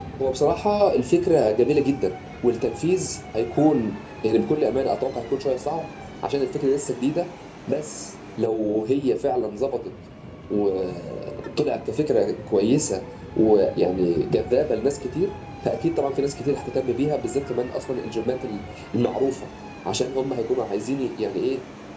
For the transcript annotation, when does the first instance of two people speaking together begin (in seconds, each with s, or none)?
none